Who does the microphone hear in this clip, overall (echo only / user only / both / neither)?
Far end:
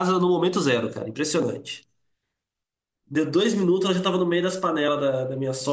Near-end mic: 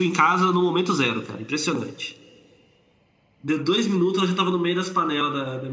echo only